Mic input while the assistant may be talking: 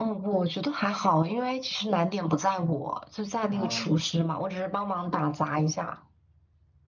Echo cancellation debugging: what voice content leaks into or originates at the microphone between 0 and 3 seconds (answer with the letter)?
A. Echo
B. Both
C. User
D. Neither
A